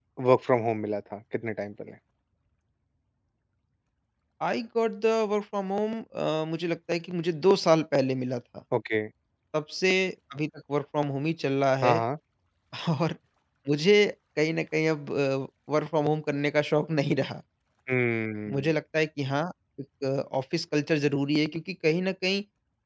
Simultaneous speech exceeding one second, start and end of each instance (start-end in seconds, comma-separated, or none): none